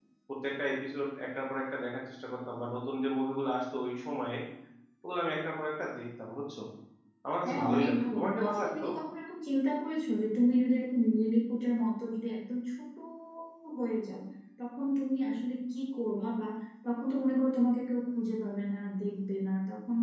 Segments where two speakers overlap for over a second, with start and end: 7.4-8.8

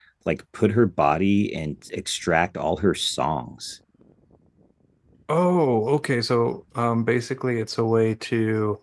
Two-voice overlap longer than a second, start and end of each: none

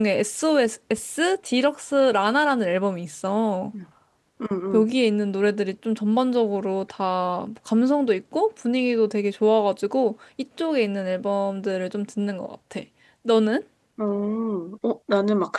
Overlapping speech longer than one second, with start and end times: none

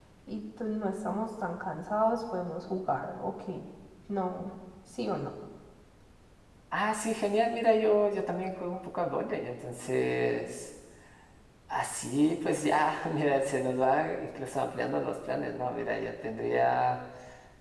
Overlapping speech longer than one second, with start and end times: none

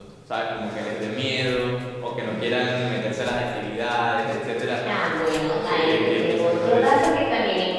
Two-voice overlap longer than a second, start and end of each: 5.5-7.0

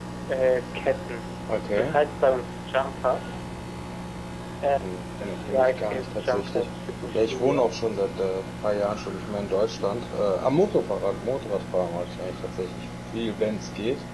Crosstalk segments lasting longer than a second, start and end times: 4.8-6.7

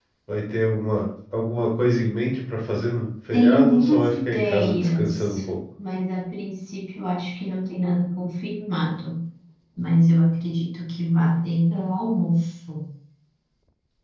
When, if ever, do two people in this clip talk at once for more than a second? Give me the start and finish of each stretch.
3.3-5.4

